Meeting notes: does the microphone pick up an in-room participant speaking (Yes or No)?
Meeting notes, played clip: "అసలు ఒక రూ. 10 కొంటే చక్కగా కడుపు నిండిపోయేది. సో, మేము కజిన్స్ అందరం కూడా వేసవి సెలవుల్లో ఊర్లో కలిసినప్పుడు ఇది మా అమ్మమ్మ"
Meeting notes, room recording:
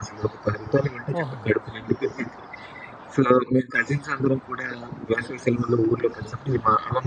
Yes